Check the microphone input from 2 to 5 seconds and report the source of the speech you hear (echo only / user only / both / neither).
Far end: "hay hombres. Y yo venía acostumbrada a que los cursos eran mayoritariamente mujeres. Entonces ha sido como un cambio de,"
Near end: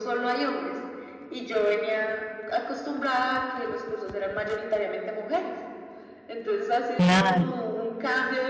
echo only